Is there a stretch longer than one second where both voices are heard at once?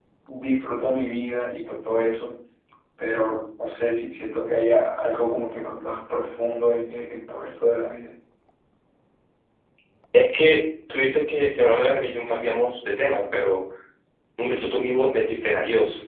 No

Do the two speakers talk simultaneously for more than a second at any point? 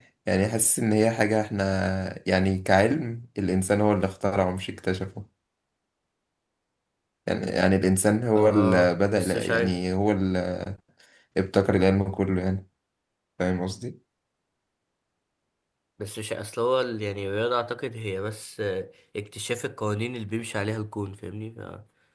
Yes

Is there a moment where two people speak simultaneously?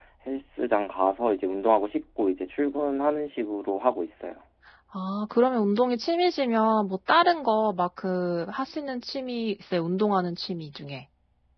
No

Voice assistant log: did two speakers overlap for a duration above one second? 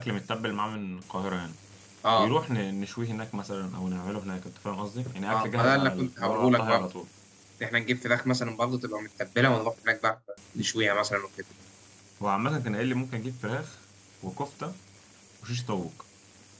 Yes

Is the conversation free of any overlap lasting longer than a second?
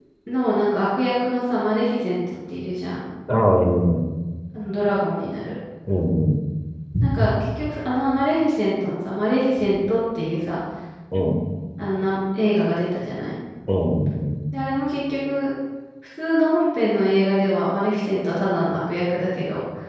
Yes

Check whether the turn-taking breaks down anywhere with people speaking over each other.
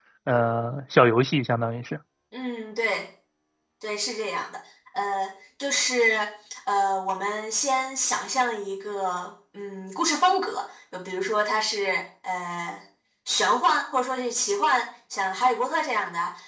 No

